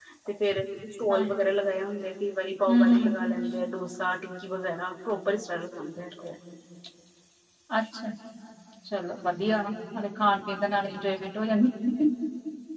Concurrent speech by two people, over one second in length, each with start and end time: none

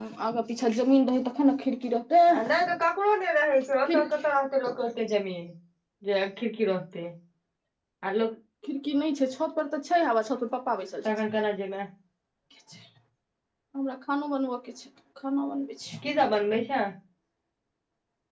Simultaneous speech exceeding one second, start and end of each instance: none

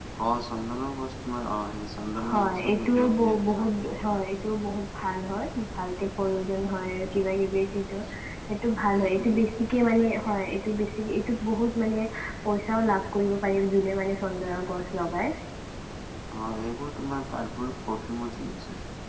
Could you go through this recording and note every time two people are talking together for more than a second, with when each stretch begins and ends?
2.3-3.7

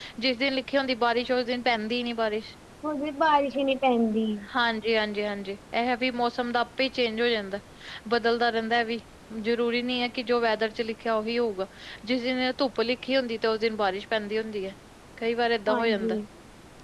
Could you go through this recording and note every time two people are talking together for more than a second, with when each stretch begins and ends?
none

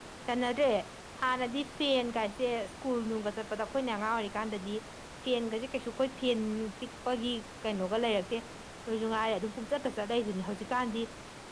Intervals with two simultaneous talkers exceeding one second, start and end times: none

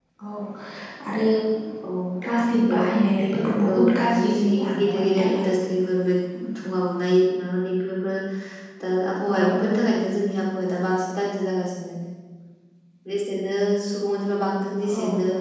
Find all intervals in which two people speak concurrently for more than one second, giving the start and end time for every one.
3.7-5.5

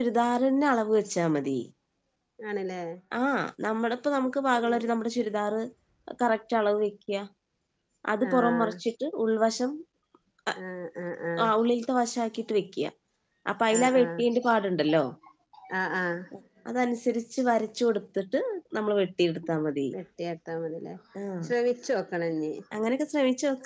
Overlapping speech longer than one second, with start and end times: none

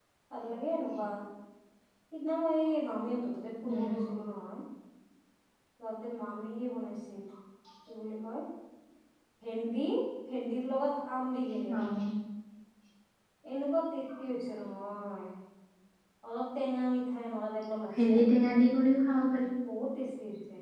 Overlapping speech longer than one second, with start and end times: none

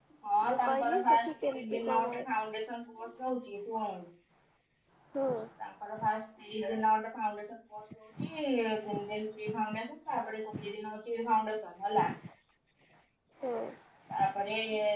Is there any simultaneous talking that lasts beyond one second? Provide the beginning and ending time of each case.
0.5-2.1

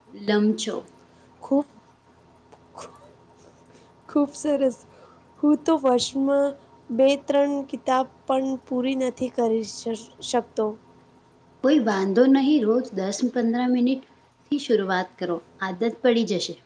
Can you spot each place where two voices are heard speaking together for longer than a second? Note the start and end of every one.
none

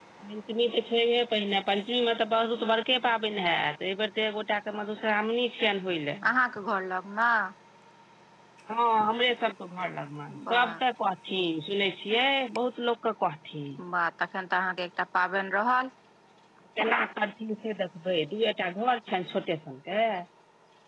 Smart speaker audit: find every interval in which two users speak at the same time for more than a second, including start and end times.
none

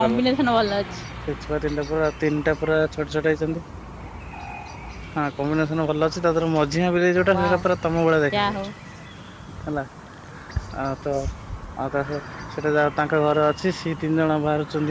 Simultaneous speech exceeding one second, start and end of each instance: none

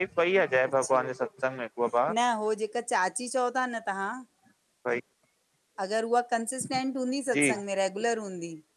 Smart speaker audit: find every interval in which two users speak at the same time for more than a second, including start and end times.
none

